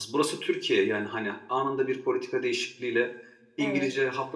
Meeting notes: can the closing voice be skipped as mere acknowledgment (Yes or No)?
Yes